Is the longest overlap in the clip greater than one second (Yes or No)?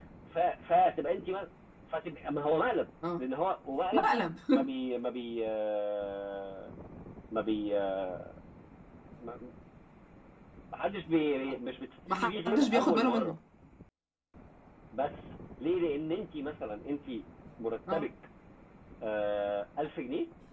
Yes